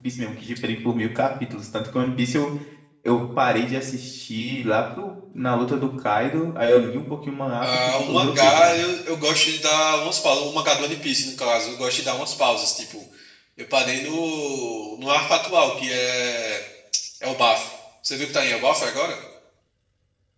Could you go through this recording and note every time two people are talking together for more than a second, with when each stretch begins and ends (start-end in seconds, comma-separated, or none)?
7.6-8.8